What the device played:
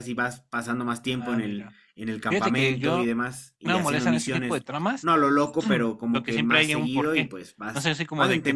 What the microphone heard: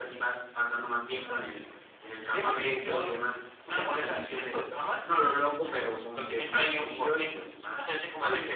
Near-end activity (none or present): none